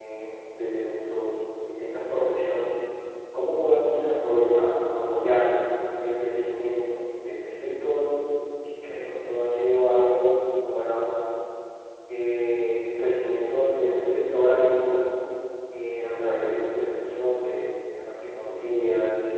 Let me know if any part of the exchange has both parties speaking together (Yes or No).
No